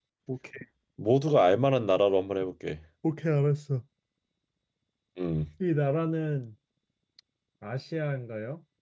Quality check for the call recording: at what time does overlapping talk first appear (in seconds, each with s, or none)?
none